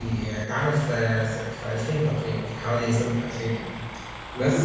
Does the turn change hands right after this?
Yes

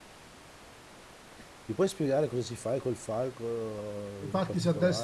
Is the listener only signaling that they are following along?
No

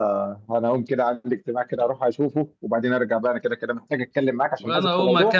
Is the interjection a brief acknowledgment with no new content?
No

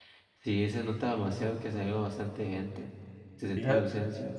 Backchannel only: No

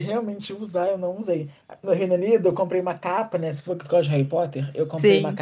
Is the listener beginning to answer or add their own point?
No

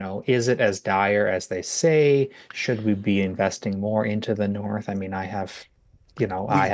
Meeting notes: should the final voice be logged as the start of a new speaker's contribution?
No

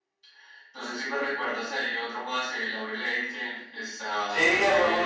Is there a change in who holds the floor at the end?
Yes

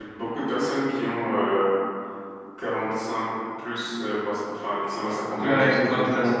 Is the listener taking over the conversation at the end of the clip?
Yes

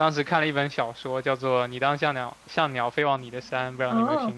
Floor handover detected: Yes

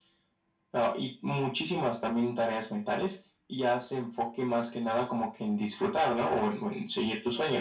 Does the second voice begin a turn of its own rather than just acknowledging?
Yes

